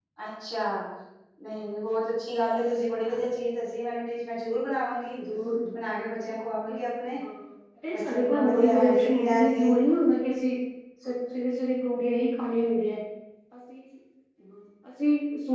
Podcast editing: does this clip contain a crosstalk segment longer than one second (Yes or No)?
Yes